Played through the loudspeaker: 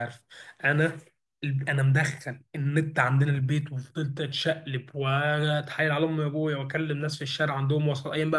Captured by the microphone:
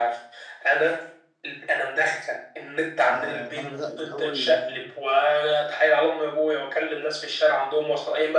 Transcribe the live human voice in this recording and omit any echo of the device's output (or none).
آه، انا بدات الاول آه،